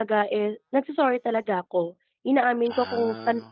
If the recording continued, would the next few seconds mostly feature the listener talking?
No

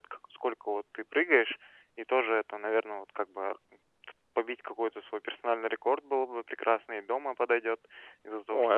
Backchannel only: Yes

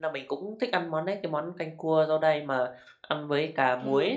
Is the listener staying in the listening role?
No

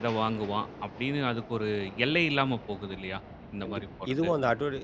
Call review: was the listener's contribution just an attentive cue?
No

